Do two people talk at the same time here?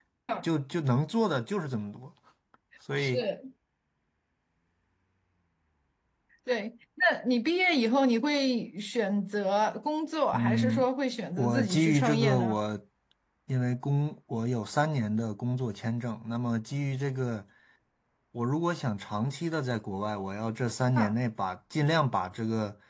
Yes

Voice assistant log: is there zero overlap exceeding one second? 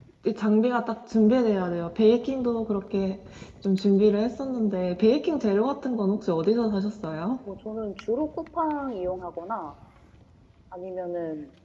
Yes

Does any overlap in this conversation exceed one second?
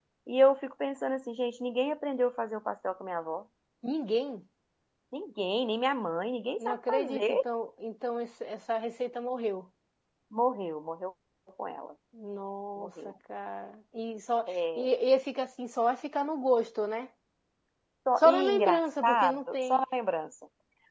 Yes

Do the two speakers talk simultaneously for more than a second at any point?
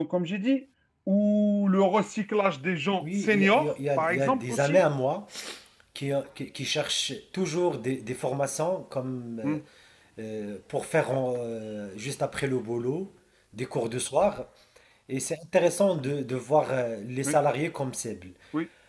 Yes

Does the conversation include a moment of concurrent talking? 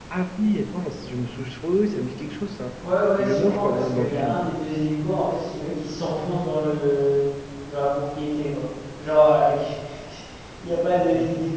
Yes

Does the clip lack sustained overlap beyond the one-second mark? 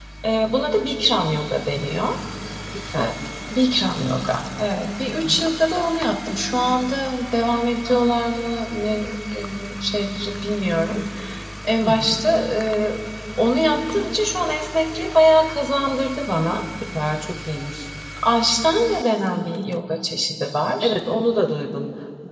Yes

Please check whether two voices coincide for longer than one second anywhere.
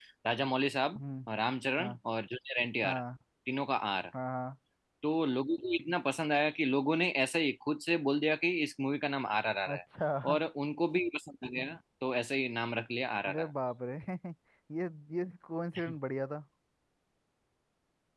No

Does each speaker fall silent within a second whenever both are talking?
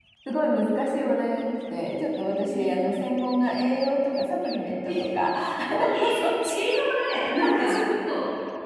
No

